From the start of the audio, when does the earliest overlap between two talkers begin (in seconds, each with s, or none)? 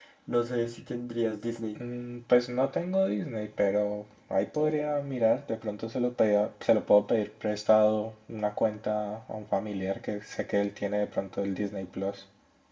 none